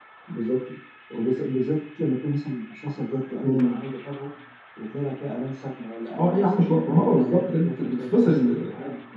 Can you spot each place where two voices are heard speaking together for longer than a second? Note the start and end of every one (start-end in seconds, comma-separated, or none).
6.2-8.7